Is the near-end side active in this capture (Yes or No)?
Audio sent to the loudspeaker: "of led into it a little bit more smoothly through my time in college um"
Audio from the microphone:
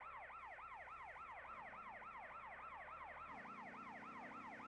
No